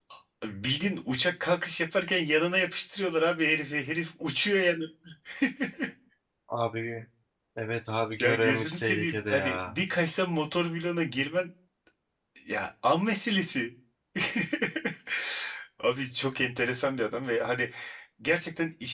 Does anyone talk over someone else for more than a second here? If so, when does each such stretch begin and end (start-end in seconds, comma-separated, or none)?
8.2-9.8